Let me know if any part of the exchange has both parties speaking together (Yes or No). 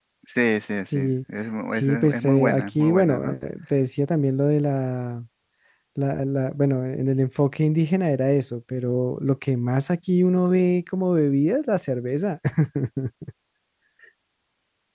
Yes